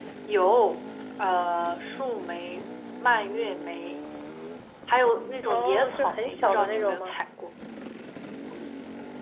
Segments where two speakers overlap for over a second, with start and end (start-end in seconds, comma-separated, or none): 5.4-7.2